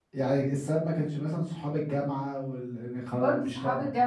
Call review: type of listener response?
taking over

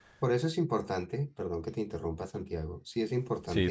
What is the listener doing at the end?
listening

